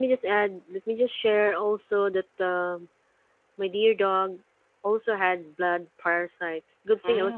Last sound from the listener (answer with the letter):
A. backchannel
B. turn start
A